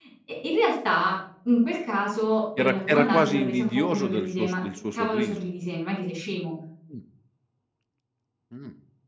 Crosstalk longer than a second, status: present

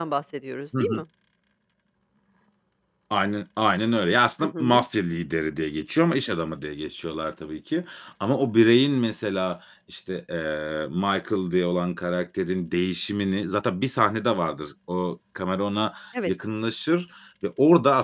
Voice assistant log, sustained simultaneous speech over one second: none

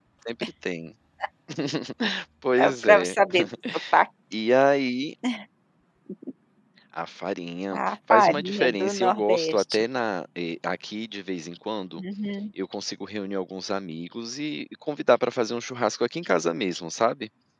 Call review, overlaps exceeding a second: present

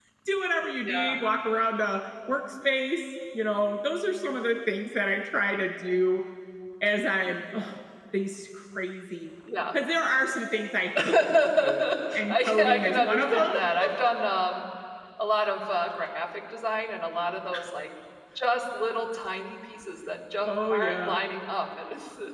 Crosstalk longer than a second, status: present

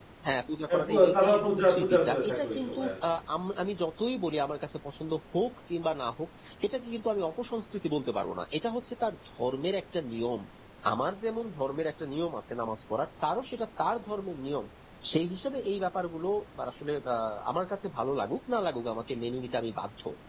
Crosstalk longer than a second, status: present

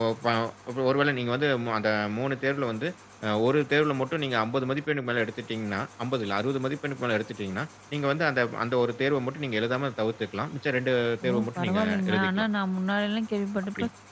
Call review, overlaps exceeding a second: present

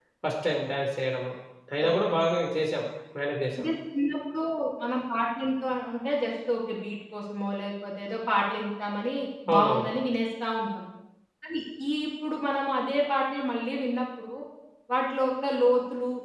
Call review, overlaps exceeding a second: none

